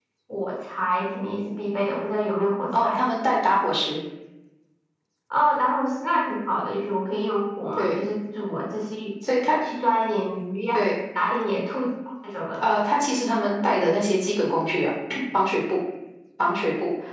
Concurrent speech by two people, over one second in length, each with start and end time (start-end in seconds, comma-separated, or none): none